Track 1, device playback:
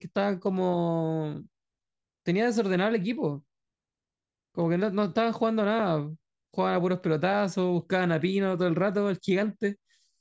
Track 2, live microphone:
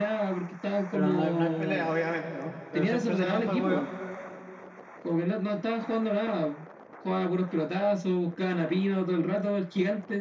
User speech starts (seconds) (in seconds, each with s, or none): 0.9 s